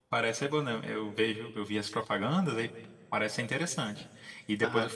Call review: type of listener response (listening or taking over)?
listening